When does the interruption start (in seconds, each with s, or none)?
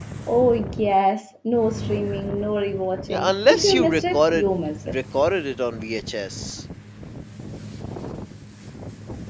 3.1 s